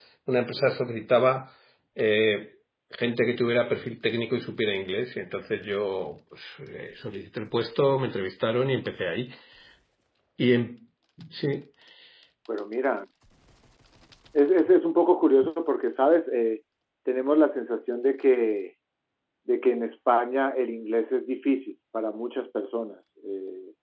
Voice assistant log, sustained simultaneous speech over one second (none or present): none